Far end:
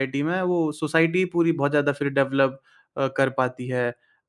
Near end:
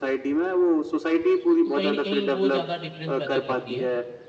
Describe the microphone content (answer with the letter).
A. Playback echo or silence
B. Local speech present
B